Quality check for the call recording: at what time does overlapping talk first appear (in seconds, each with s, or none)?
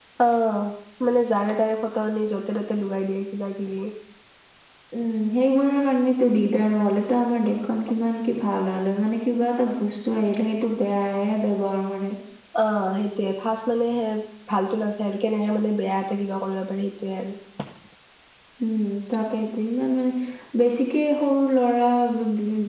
none